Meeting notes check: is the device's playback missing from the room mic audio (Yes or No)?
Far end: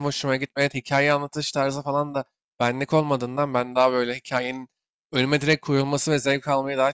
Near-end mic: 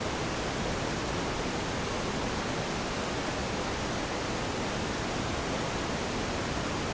Yes